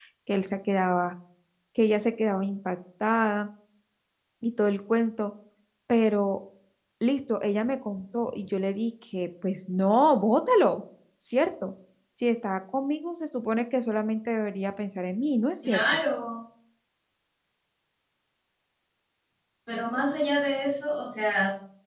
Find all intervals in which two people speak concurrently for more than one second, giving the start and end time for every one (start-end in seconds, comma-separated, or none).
none